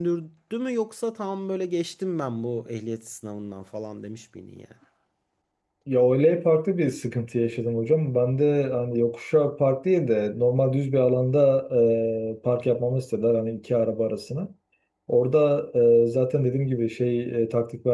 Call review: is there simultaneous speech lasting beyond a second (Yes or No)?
No